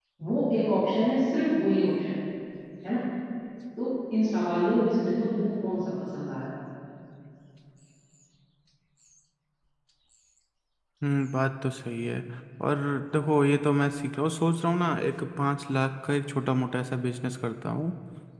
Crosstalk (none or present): none